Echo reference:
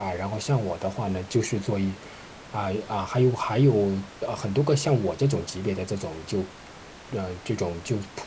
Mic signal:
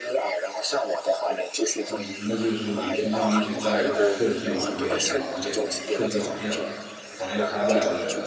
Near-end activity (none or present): present